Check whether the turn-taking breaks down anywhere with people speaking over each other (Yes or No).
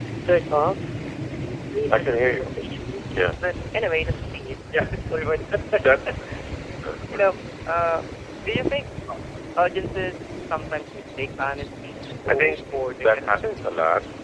Yes